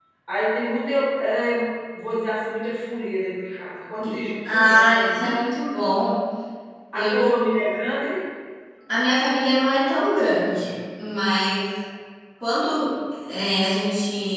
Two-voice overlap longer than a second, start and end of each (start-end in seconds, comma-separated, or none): 4.0-5.4